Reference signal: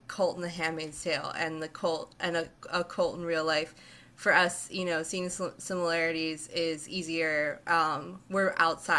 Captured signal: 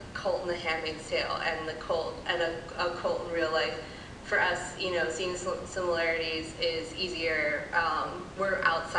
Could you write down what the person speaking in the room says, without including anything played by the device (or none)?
none